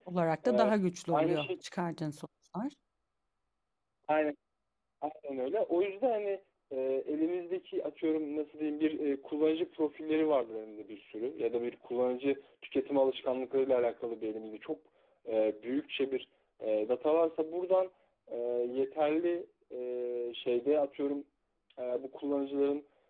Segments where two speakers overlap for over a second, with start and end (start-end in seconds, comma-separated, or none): none